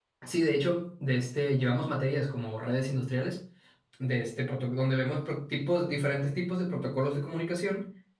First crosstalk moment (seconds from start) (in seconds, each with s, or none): none